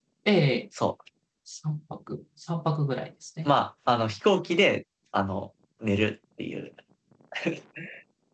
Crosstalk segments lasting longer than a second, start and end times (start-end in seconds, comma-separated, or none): none